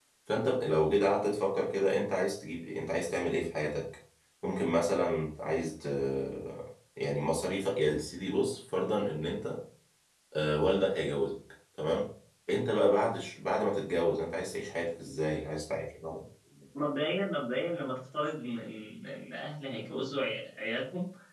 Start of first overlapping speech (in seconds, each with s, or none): none